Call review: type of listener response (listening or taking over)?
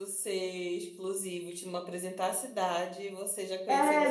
taking over